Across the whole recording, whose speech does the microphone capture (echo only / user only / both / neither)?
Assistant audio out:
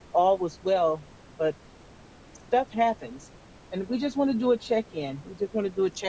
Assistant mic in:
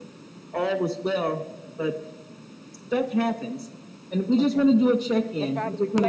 both